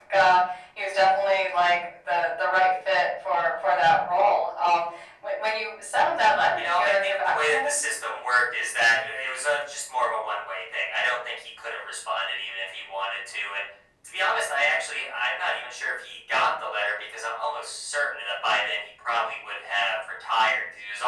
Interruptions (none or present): present